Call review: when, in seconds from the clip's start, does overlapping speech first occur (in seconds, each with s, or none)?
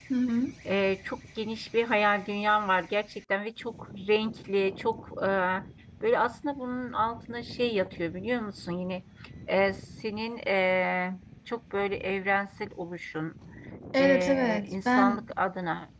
14.0 s